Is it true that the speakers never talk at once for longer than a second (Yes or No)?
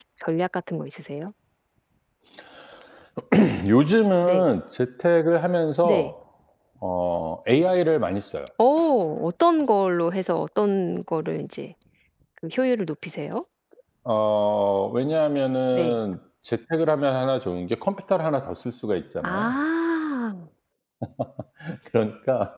Yes